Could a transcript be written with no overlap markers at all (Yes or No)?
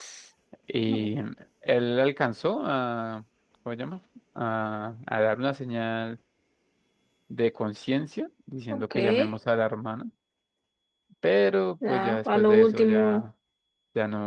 No